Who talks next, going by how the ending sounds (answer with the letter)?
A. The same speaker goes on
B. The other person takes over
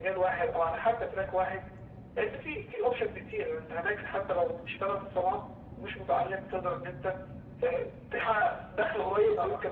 B